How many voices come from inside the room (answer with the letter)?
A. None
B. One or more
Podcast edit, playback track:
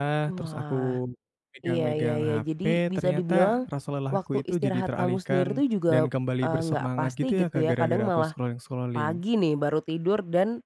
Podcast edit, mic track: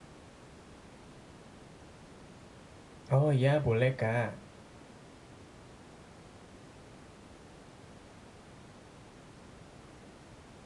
B